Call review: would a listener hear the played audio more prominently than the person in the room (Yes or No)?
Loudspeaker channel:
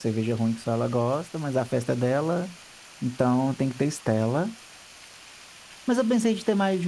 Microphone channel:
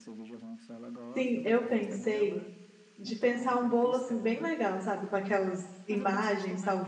No